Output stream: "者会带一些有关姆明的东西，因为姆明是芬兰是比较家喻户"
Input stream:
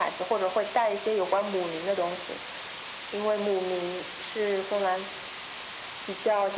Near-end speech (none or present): none